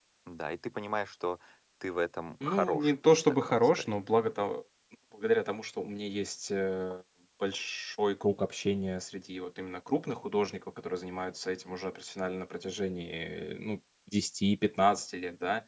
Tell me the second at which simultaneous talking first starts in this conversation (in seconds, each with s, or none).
2.4 s